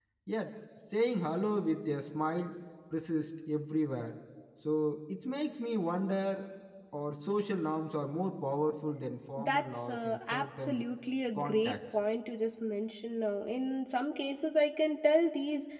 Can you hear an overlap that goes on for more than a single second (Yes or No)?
Yes